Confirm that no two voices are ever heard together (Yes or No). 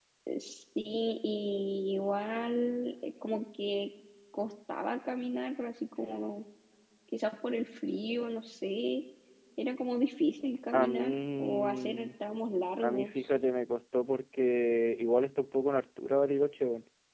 No